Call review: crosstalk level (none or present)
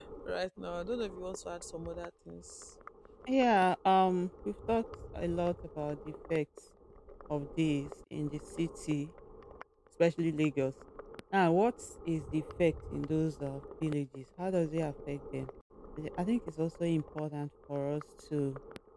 none